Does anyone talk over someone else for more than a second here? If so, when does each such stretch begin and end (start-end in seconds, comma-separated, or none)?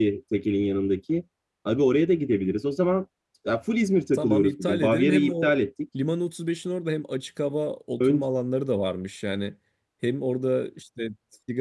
4.1-5.5